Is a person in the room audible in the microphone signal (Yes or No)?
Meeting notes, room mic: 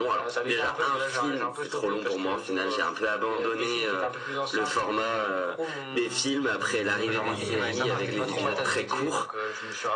Yes